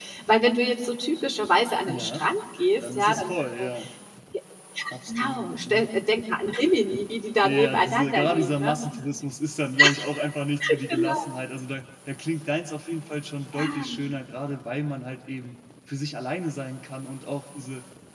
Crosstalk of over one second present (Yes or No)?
Yes